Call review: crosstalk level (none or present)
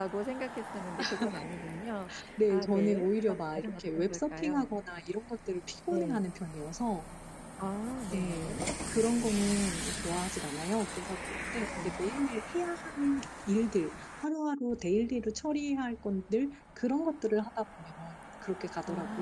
present